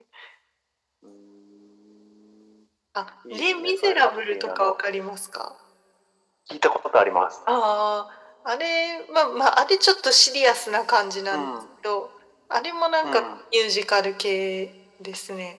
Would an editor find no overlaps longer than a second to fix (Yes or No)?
No